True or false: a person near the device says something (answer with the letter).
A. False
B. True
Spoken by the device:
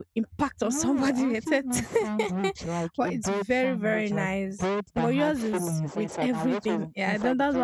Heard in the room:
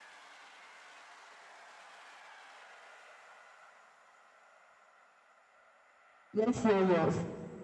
B